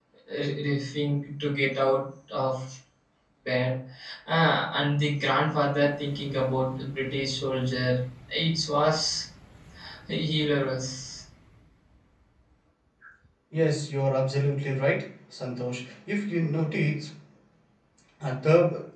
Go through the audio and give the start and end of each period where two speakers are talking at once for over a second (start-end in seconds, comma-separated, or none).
none